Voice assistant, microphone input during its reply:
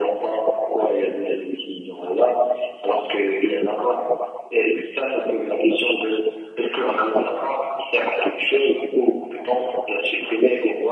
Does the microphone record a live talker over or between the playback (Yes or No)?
No